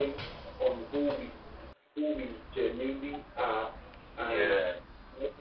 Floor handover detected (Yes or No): No